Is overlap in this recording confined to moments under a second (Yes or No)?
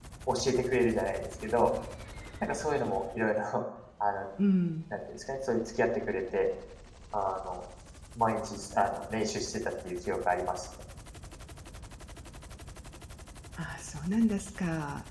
Yes